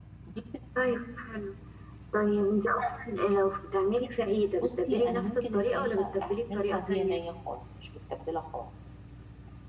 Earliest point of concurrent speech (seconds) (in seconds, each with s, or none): 4.6 s